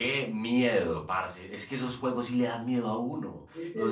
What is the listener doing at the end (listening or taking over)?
listening